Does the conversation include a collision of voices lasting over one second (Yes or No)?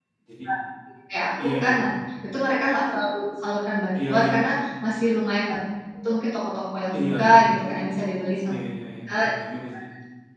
Yes